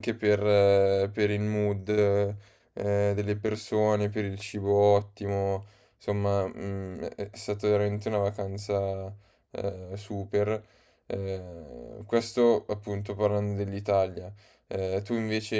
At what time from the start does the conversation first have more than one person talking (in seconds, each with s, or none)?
none